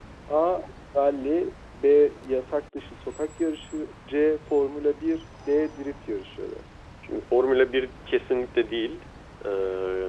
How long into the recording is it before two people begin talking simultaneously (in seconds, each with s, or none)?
none